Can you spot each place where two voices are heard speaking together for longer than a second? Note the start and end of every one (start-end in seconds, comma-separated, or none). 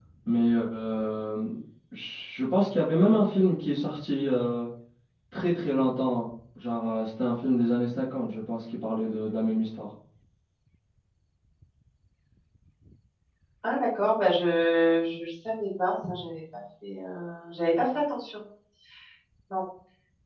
none